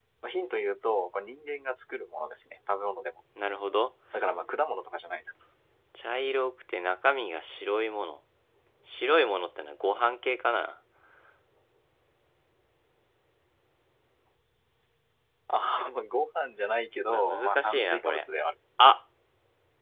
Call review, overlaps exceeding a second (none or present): present